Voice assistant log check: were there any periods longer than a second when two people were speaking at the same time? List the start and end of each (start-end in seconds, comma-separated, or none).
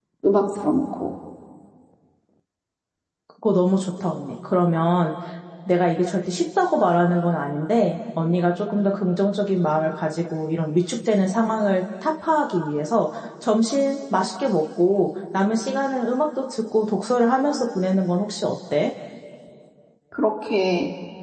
none